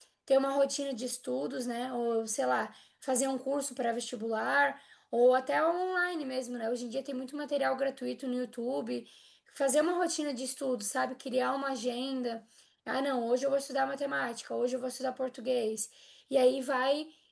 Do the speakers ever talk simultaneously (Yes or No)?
No